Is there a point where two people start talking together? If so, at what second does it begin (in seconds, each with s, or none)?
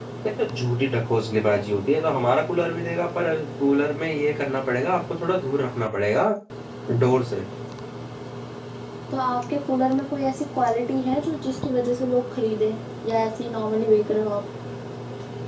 none